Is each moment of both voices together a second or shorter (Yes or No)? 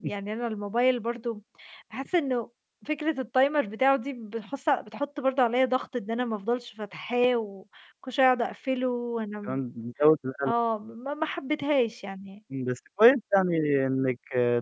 Yes